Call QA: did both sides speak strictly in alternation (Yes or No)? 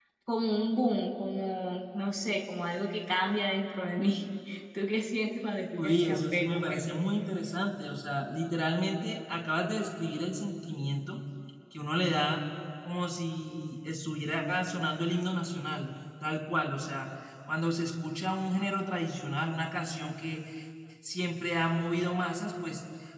No